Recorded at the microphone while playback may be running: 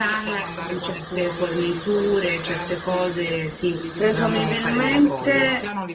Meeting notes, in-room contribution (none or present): present